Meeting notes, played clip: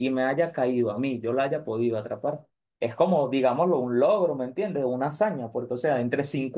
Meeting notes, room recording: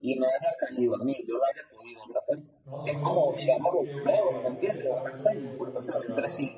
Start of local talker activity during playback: 2.6 s

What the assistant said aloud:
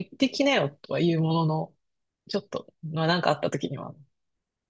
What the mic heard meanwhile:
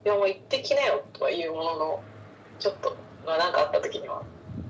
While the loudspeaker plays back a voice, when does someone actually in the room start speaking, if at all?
none

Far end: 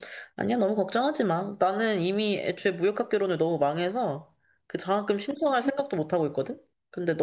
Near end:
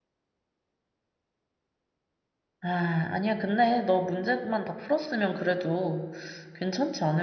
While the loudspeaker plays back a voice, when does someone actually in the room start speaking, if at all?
2.6 s

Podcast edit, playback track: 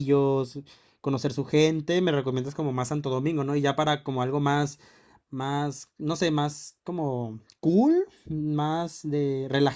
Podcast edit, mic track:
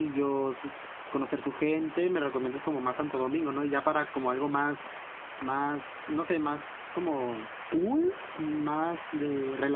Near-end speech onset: none

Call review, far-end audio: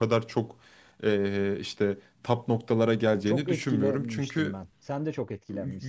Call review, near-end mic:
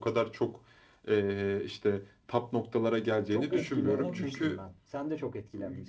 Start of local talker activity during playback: 3.5 s

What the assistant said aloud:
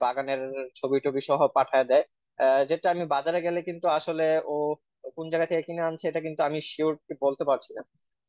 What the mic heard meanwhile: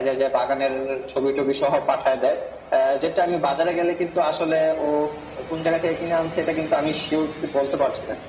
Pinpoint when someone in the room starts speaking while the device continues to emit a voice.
none

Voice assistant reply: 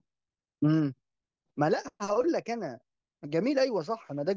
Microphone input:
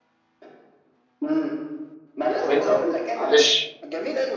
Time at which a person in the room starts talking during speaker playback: 2.4 s

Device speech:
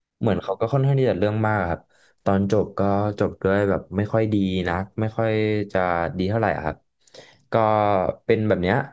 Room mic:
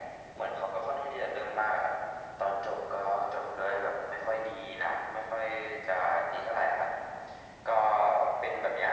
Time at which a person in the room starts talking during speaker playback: none

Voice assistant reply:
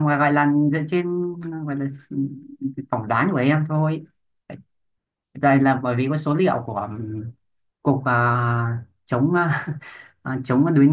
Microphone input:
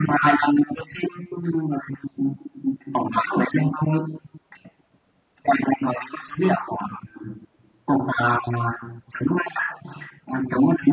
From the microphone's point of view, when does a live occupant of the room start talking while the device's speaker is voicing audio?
none

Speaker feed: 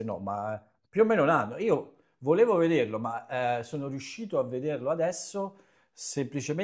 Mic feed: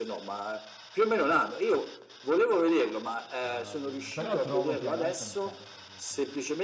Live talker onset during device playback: 3.4 s

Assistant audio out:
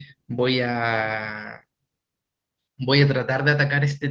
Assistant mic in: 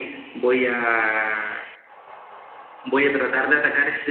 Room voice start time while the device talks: none

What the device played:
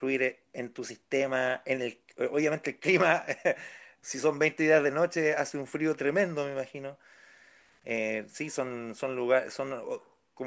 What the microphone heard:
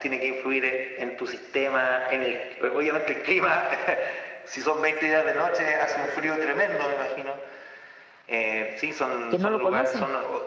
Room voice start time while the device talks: 9.3 s

